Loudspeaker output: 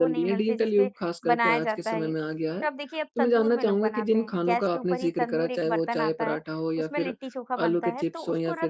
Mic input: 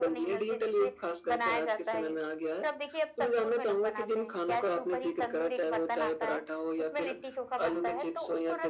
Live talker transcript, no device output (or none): none